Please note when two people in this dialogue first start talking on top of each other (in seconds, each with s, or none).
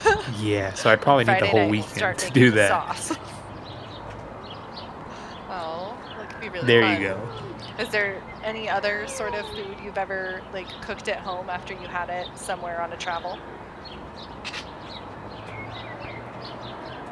1.1 s